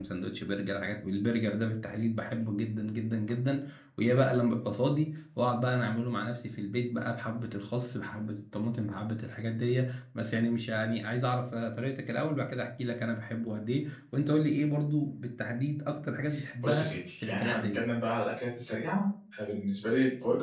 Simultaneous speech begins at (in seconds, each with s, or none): 16.6 s